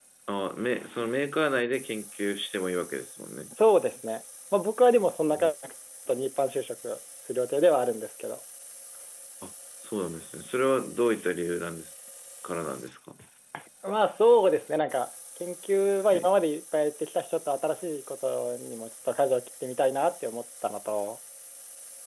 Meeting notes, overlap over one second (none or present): none